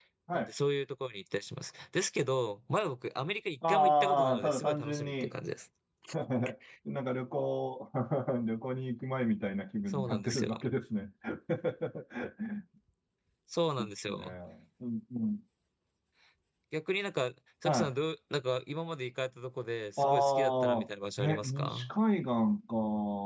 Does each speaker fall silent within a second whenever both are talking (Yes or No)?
No